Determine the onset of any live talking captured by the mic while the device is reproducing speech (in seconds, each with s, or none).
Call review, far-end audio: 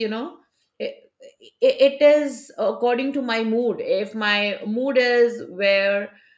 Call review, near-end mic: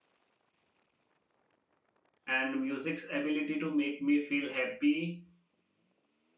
2.3 s